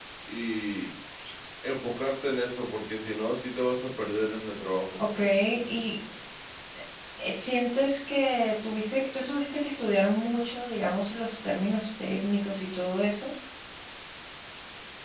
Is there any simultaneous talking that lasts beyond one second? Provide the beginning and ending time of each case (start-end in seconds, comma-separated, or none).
none